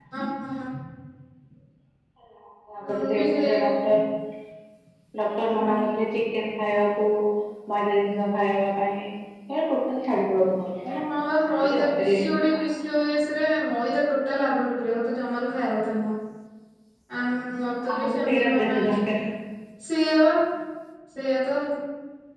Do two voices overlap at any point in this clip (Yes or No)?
Yes